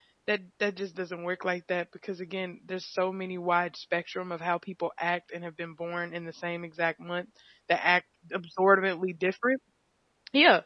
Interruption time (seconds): none

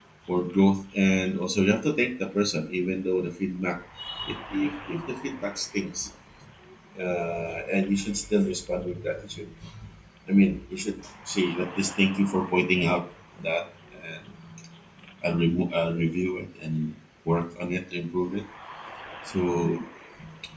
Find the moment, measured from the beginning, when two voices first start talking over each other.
none

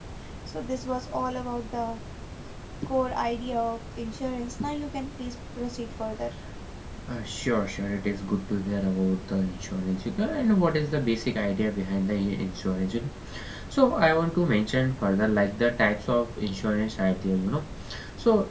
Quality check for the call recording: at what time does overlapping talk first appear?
none

